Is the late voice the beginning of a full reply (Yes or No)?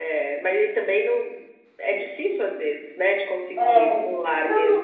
Yes